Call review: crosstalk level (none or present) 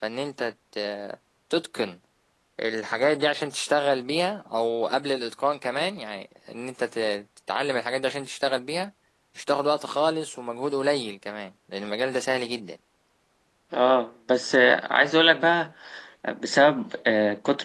none